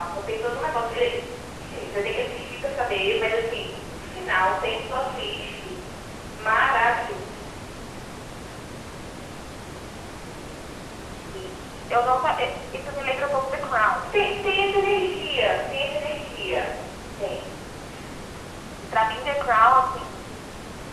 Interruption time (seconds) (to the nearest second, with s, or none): none